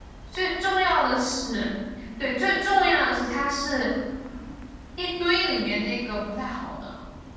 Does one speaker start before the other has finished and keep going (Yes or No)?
No